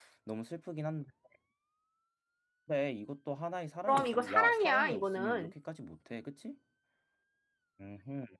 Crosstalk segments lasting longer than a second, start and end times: 3.9-5.5

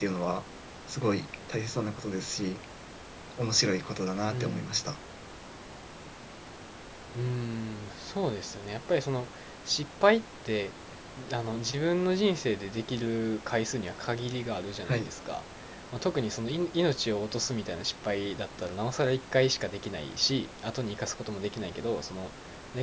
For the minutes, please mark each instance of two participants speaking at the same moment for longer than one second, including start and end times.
none

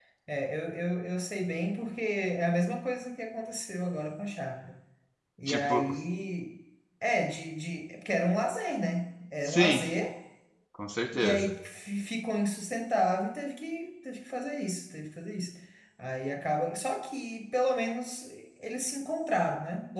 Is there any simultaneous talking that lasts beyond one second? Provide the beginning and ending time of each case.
none

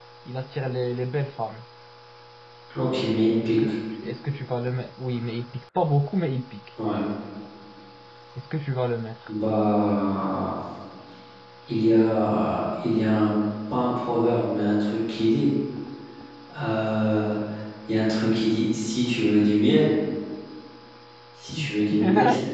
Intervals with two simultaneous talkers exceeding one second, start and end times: none

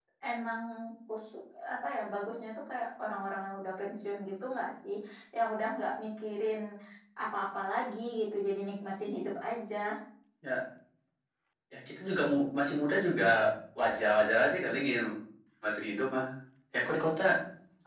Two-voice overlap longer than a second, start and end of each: none

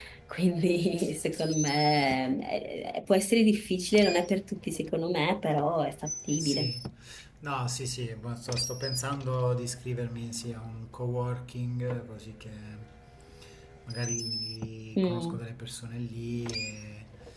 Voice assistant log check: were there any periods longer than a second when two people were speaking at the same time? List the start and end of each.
none

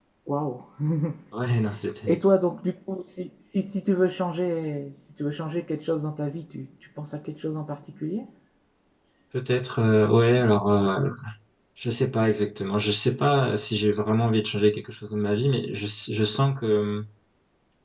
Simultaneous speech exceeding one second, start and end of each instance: none

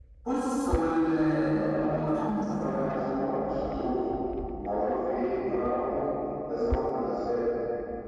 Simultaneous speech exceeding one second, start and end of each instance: 1.6-2.8

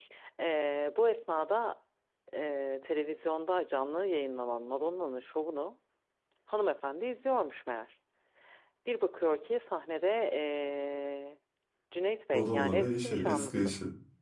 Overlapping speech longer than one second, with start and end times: 12.3-13.7

